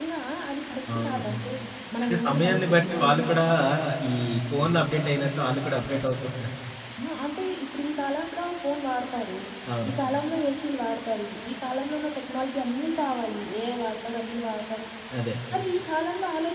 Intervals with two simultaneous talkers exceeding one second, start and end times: 2.0-3.3

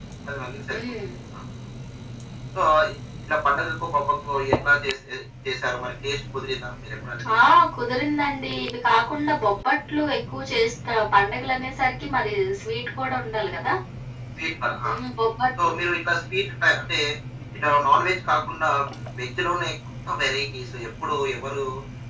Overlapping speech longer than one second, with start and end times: none

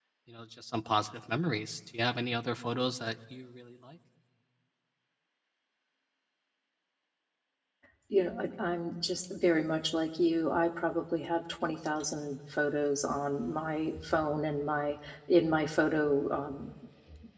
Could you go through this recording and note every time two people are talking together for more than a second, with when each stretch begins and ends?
none

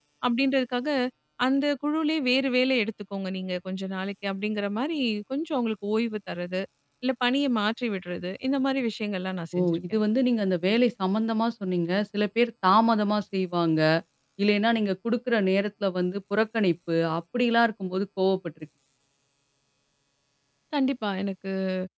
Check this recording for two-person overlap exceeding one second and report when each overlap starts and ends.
none

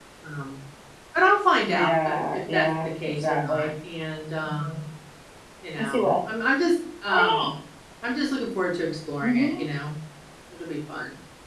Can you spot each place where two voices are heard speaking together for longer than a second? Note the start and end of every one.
1.6-3.7

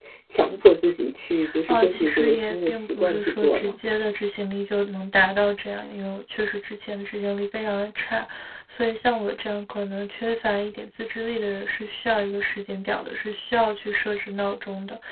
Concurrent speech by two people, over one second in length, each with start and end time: 1.7-3.8

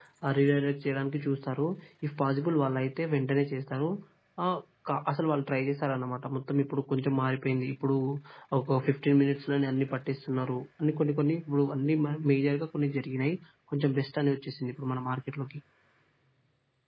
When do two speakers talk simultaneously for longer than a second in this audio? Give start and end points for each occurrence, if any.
none

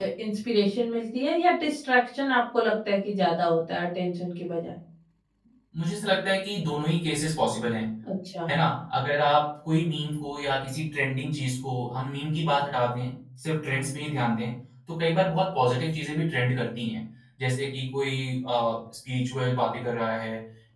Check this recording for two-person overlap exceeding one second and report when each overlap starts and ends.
none

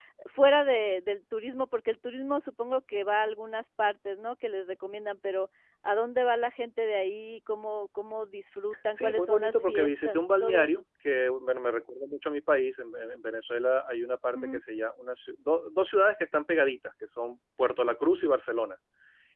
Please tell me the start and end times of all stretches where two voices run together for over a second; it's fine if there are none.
8.9-10.7

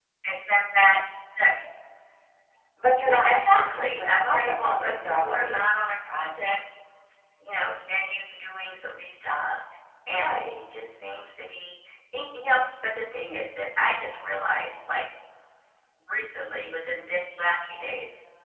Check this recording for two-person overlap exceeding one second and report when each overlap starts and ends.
3.0-5.6

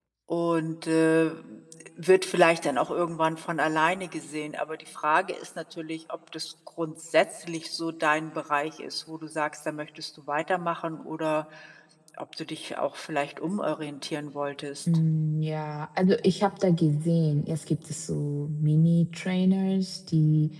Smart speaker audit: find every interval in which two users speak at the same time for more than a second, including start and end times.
none

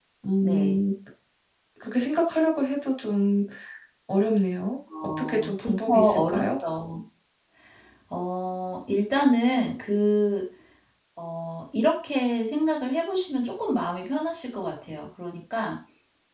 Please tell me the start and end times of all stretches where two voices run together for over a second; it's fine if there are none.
5.0-6.5

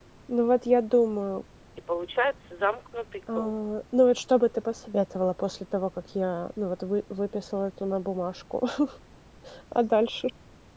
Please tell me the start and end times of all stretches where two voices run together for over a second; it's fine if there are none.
none

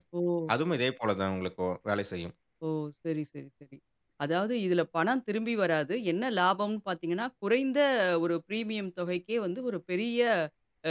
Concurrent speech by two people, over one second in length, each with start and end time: none

